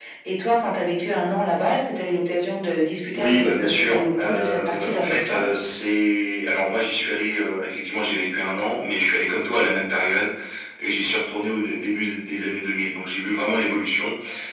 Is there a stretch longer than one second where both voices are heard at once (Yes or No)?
Yes